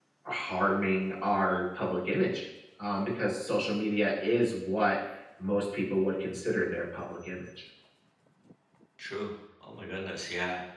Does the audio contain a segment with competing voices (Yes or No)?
No